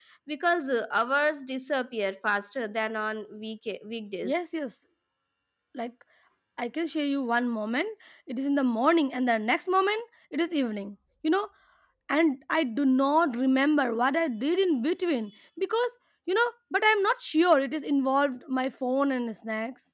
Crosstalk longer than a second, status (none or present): none